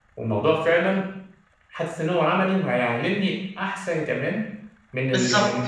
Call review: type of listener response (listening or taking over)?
listening